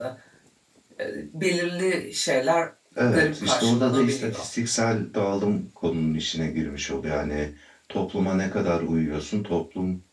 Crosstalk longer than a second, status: present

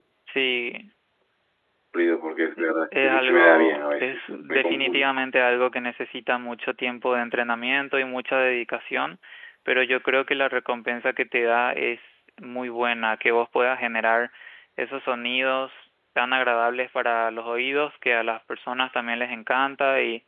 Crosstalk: present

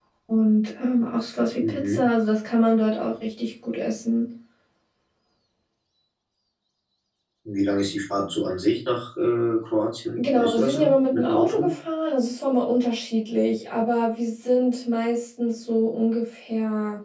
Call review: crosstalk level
present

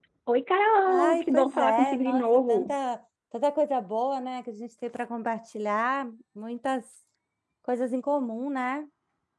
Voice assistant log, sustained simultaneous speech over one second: present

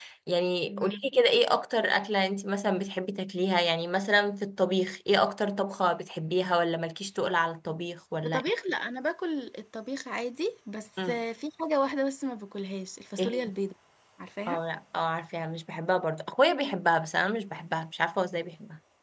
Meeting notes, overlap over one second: none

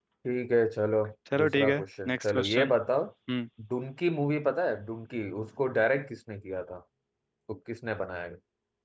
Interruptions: present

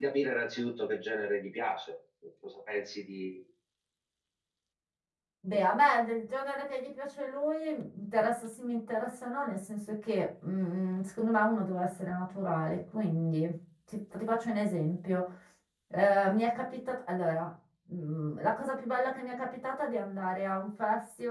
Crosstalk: none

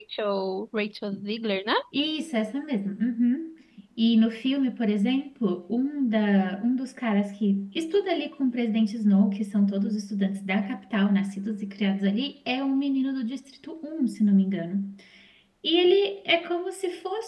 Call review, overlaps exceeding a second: none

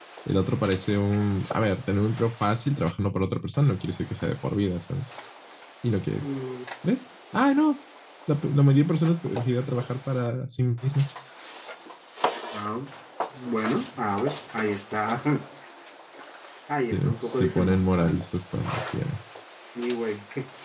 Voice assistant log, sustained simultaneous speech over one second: present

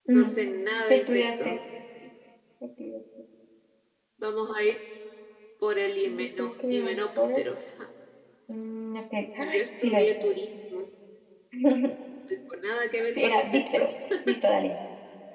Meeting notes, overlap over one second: present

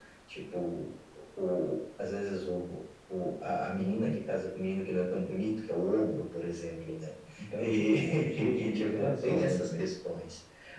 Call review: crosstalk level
present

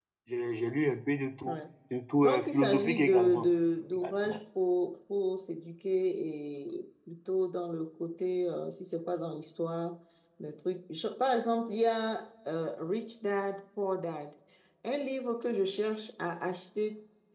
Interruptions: present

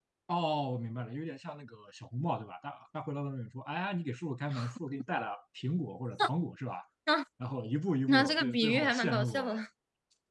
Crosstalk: present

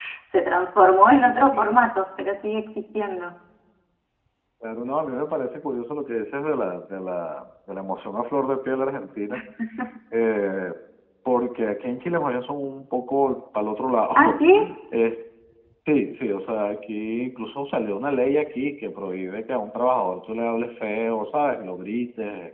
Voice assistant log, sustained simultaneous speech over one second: none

